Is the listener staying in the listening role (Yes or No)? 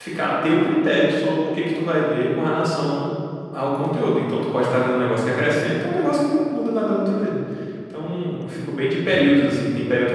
Yes